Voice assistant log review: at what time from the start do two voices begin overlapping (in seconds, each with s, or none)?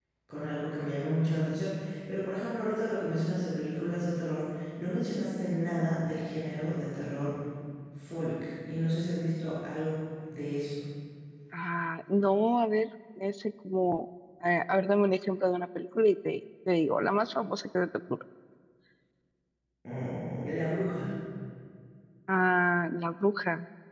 none